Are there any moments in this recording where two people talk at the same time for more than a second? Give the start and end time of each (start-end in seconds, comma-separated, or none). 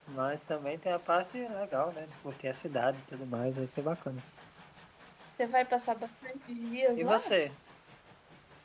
none